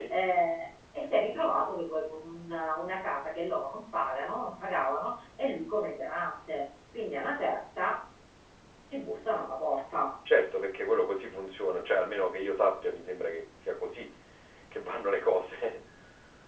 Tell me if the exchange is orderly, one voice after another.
Yes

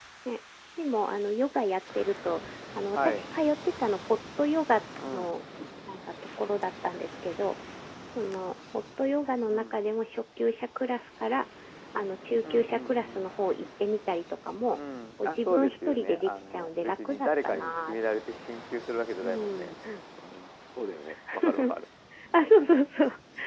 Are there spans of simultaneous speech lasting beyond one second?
Yes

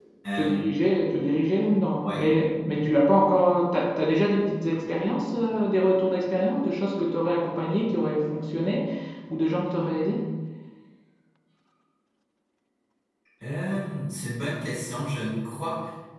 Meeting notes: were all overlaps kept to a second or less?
Yes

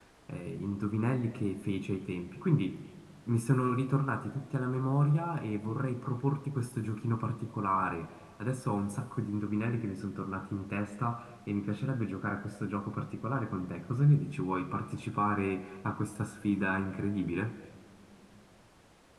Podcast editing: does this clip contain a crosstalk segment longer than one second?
No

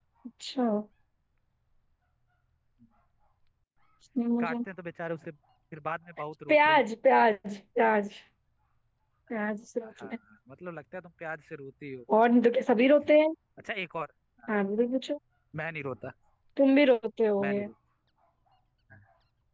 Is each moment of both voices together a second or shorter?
Yes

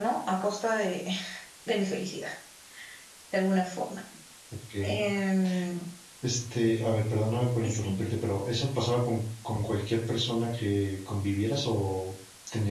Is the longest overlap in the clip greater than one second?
No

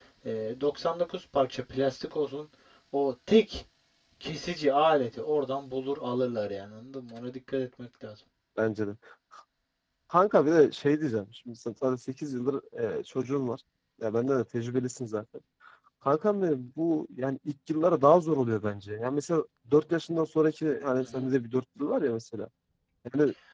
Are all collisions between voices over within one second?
Yes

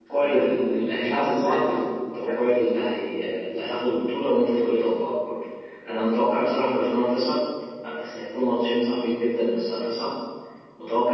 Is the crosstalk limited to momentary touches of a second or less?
No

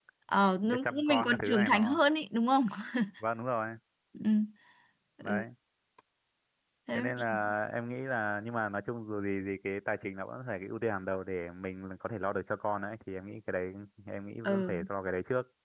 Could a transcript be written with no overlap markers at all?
No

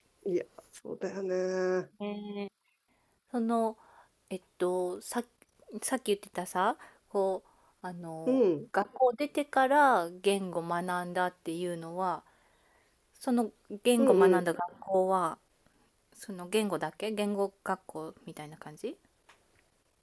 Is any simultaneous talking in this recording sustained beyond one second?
No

